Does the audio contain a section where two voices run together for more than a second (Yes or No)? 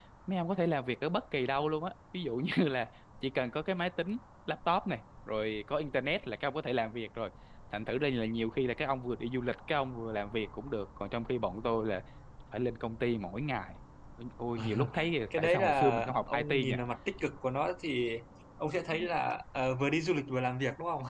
Yes